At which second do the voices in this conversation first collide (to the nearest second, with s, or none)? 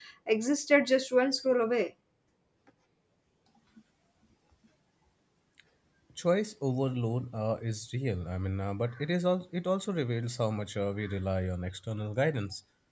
none